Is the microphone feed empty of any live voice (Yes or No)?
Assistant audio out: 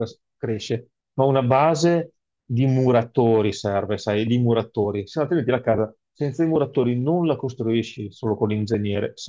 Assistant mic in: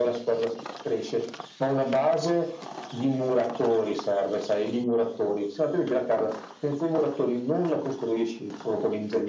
Yes